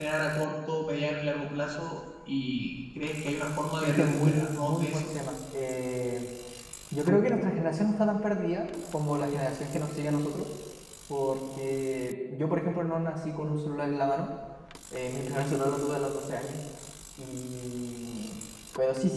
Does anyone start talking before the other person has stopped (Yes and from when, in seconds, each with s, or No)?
Yes, from 3.8 s